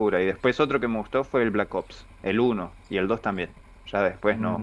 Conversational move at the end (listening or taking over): taking over